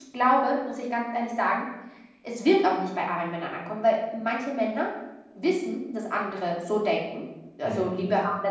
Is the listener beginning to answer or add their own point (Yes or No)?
No